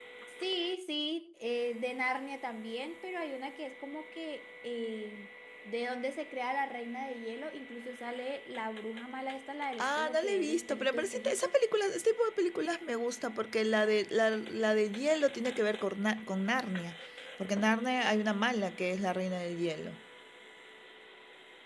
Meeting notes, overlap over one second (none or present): present